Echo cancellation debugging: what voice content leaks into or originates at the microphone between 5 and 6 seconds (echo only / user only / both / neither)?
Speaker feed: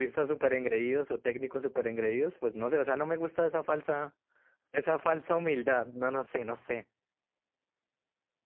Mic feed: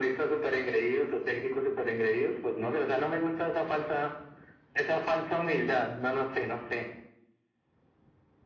echo only